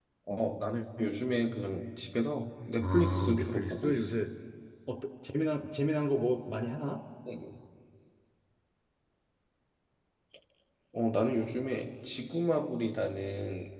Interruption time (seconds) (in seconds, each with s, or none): 2.8 s